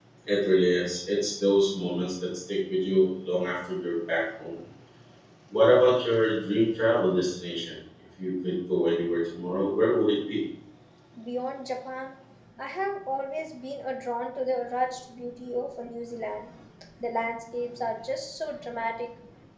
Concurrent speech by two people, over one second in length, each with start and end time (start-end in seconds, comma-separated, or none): none